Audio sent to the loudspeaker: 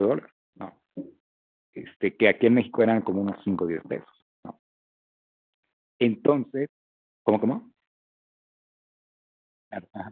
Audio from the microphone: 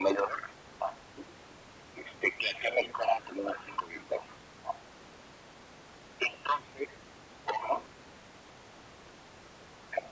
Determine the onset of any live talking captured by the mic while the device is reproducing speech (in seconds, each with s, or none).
none